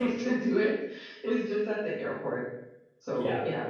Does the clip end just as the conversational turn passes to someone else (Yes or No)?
Yes